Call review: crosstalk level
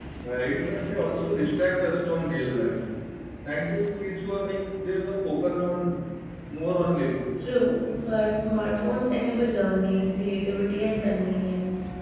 none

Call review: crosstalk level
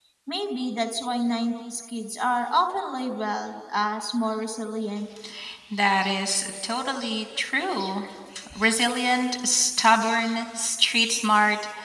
none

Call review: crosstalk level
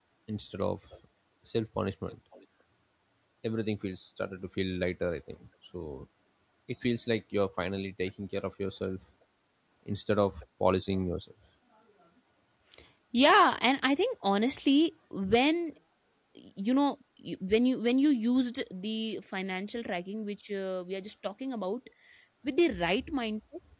none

